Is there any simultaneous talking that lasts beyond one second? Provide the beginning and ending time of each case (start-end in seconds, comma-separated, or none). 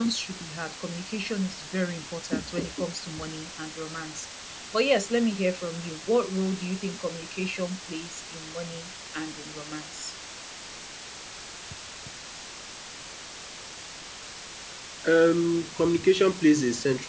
none